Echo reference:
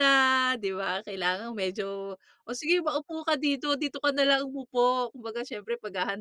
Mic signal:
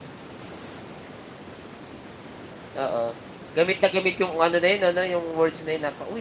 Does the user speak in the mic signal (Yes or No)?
Yes